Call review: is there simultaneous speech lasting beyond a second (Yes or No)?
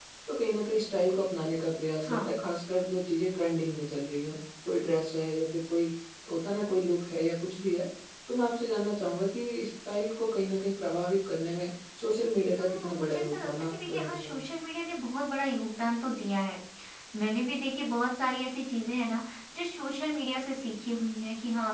Yes